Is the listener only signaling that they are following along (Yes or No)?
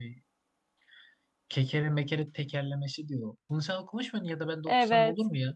No